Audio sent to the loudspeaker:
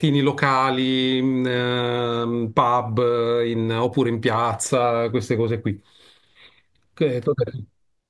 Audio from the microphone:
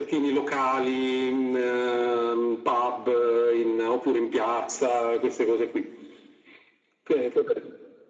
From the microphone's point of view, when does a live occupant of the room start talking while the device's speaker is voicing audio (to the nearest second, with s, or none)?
none